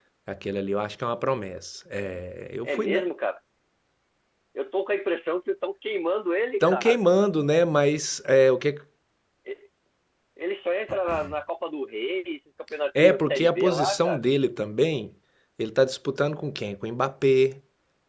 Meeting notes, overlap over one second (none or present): present